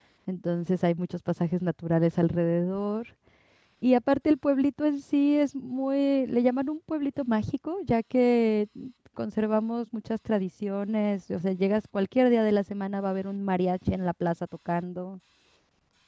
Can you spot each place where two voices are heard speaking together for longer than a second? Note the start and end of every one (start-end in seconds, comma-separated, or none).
none